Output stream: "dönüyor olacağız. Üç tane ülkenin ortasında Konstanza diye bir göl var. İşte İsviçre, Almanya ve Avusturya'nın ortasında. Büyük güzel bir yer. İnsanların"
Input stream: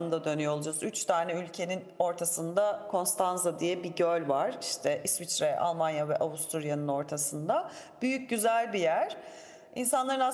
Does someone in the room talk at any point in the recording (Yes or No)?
No